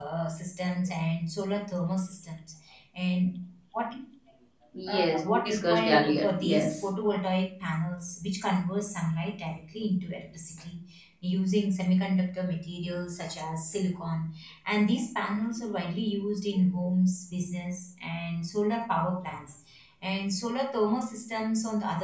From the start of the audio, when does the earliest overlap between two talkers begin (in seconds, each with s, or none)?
4.9 s